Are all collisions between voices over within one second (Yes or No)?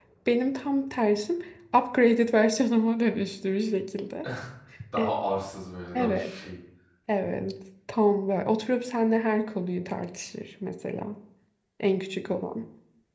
Yes